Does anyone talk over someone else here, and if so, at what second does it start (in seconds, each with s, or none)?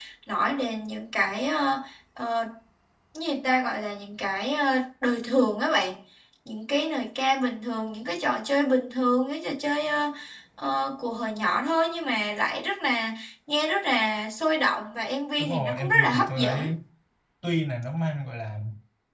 15.4 s